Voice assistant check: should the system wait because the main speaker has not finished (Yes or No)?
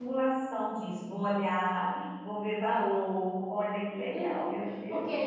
No